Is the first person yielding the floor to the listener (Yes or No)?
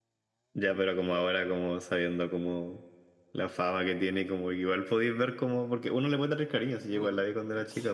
Yes